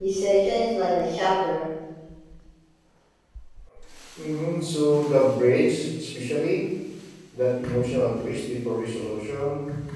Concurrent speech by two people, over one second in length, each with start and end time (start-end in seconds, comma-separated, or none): none